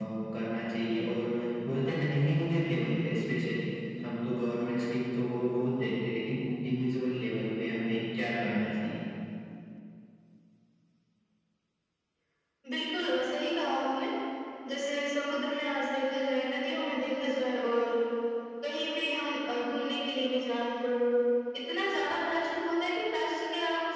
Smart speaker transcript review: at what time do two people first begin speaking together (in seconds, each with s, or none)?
none